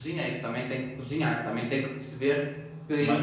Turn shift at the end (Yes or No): No